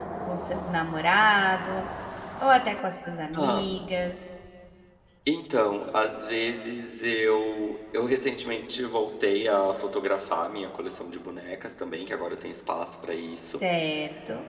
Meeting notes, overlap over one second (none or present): none